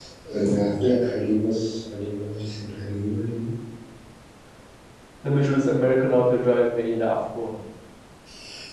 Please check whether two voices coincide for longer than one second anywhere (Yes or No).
No